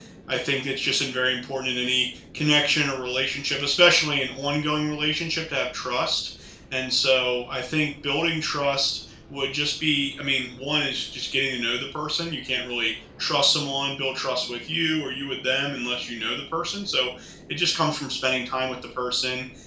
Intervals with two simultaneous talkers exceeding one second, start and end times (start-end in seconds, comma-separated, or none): none